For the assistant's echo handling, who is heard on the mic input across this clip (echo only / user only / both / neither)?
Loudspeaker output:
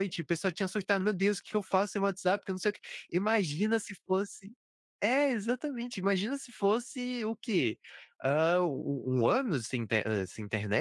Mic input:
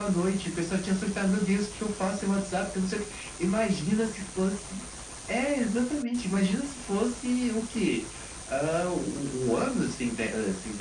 echo only